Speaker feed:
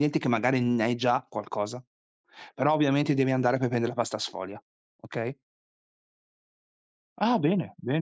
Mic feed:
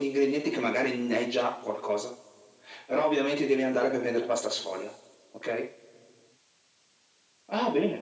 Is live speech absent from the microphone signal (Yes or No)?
Yes